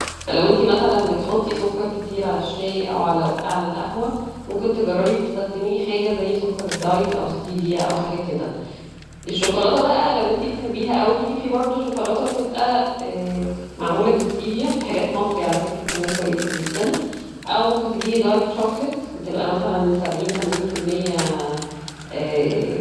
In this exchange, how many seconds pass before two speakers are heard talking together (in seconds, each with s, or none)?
none